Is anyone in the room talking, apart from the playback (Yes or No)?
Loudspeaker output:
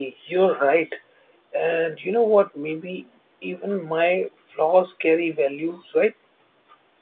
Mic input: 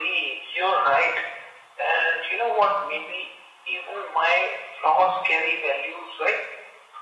No